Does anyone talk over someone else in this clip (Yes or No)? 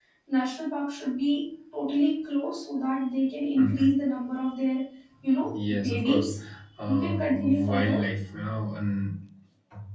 Yes